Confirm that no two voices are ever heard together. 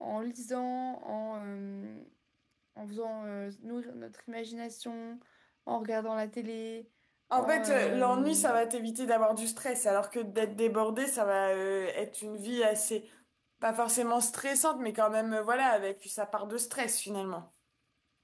No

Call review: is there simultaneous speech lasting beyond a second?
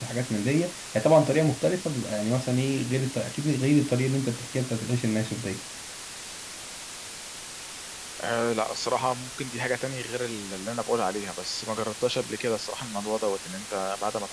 No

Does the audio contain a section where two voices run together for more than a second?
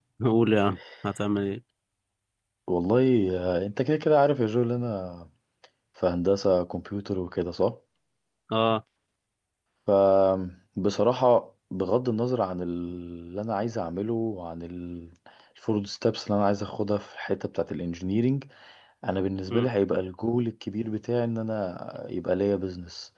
No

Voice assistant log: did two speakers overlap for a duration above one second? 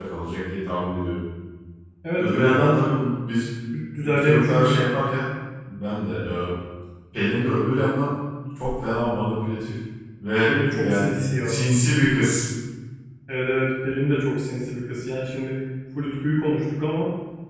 Yes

